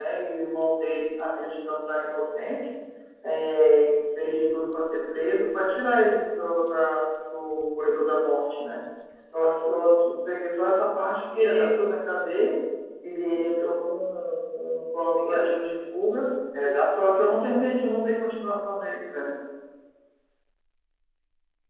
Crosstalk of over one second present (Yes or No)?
No